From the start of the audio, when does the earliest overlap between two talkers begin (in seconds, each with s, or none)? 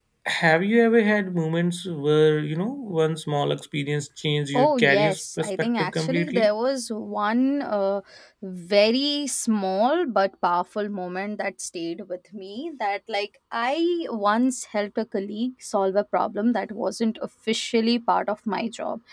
4.5 s